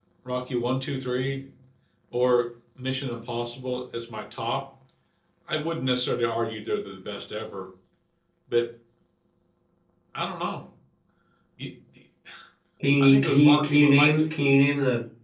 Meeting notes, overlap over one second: present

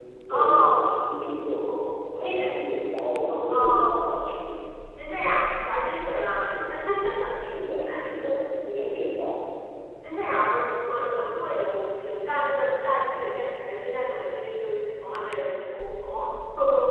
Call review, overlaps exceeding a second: none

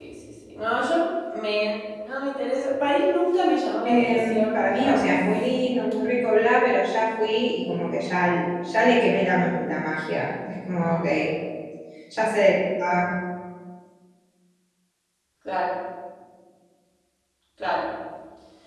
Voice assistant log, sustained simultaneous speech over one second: present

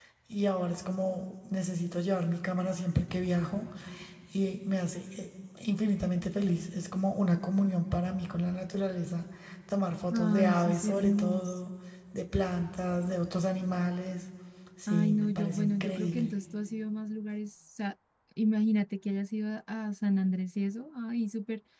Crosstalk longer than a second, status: present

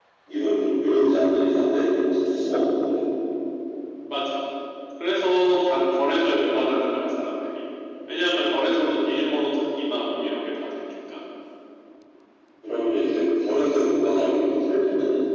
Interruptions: none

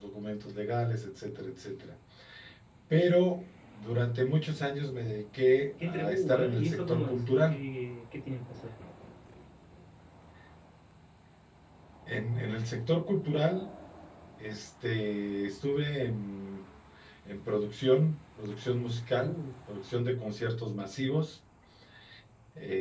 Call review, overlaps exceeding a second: present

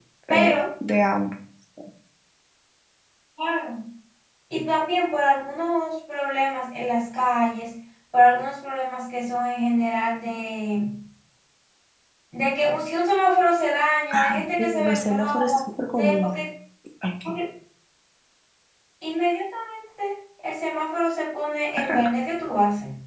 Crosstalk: present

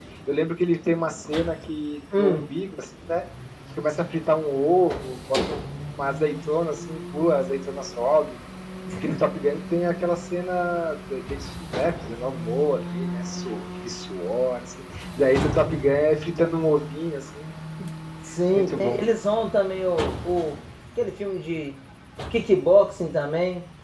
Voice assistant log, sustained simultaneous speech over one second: none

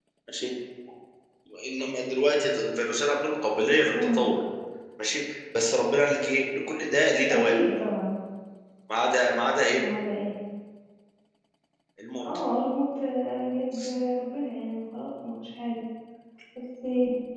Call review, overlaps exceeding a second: none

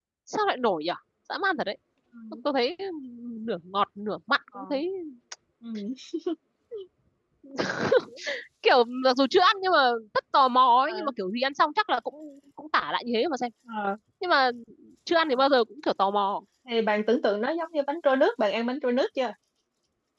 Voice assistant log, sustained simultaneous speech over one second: none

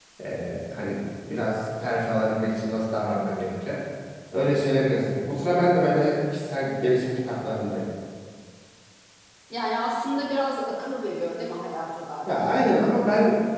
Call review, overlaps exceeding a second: none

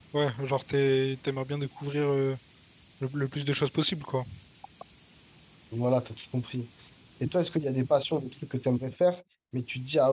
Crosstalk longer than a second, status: none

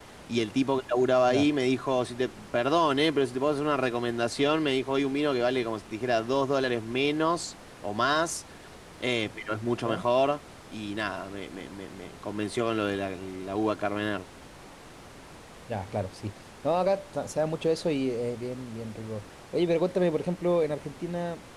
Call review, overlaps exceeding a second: none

